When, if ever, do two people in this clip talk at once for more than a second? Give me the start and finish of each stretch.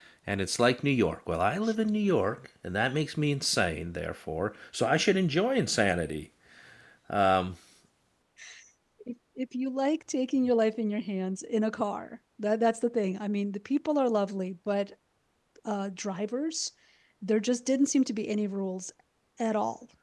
none

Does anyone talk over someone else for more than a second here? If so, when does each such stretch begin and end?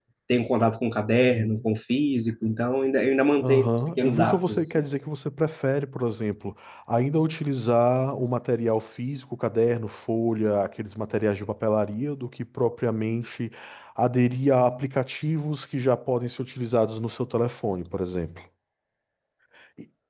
3.4-4.8

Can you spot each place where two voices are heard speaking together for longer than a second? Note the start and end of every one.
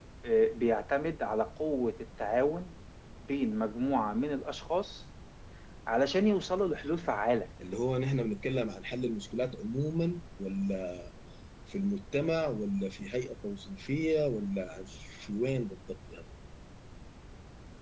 none

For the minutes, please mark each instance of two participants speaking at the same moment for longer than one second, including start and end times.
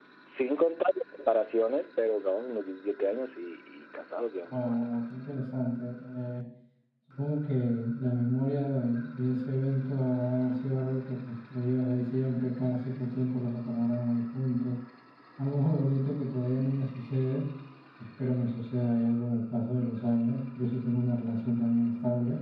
none

